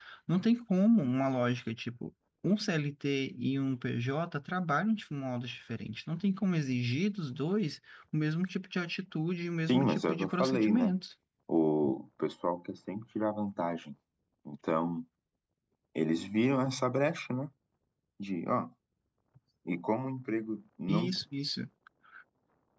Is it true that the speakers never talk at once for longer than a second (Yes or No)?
No